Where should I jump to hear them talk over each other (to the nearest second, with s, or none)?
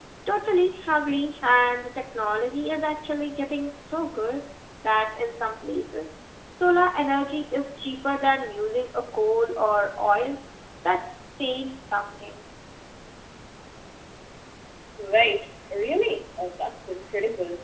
none